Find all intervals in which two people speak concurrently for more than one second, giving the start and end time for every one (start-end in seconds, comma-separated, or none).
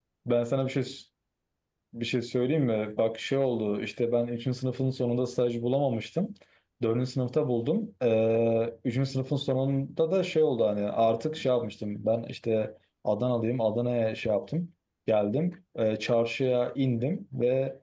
none